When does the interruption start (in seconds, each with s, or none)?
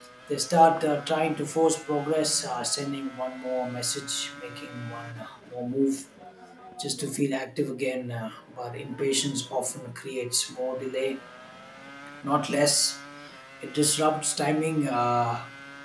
none